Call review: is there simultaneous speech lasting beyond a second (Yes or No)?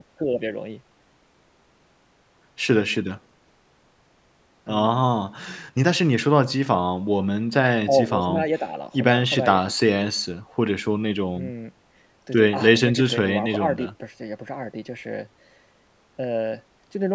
Yes